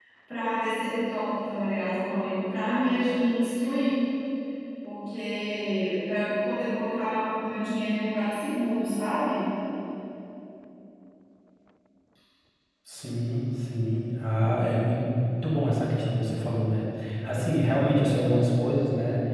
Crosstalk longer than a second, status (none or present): none